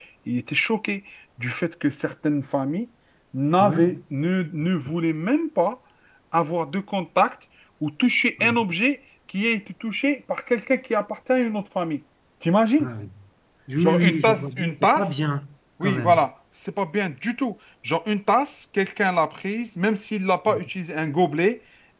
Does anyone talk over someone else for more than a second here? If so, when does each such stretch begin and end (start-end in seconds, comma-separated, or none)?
13.8-15.1